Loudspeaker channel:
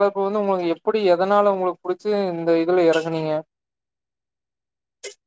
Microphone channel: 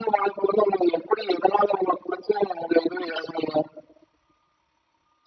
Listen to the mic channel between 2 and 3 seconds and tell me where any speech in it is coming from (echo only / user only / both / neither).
echo only